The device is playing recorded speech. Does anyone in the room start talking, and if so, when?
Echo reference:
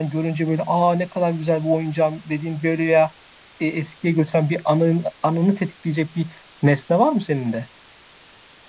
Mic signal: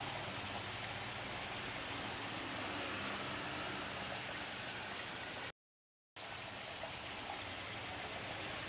none

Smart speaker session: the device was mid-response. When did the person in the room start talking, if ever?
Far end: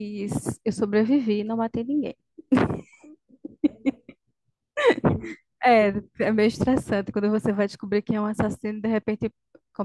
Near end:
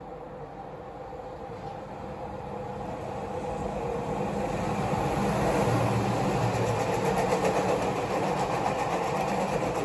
none

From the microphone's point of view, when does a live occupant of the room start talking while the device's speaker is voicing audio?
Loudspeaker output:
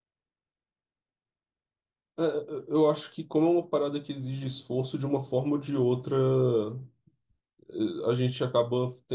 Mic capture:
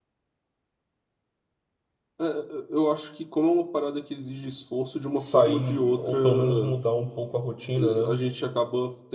5.2 s

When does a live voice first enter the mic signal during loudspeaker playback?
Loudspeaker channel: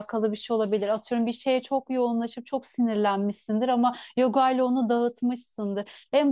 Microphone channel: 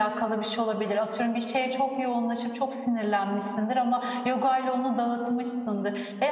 none

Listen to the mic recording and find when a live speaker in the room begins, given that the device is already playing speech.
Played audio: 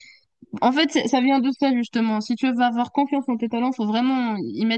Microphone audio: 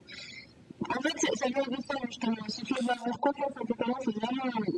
none

